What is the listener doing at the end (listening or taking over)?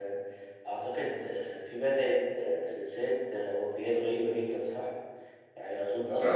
listening